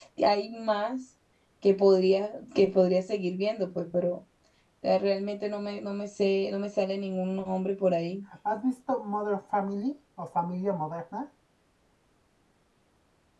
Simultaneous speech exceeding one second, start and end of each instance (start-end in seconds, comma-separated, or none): none